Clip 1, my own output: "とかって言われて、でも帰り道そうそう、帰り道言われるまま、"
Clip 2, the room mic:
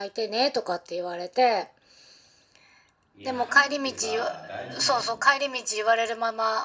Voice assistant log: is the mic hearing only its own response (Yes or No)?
No